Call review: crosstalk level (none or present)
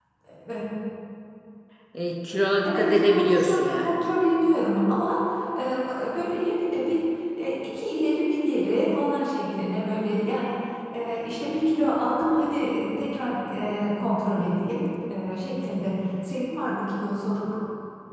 present